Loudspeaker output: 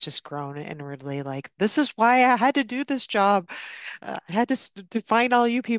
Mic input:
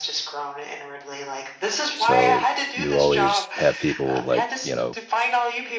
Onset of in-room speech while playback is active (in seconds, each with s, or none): 2.0 s